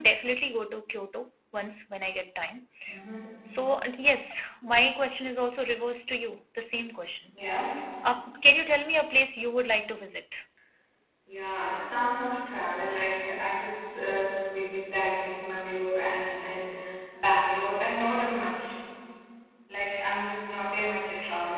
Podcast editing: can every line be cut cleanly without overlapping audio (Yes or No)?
Yes